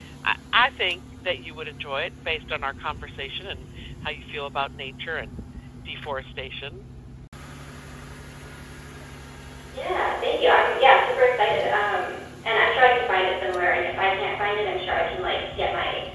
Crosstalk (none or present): none